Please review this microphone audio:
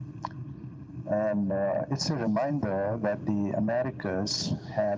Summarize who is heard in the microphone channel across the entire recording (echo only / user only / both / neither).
echo only